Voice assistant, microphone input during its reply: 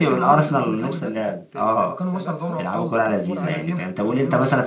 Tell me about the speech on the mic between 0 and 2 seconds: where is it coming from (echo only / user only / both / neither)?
both